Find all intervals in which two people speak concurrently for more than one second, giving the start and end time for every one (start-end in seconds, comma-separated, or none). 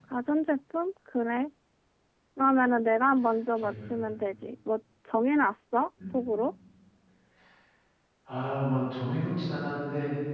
none